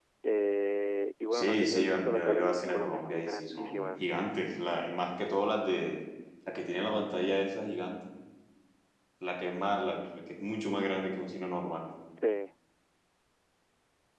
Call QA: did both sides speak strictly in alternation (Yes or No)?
No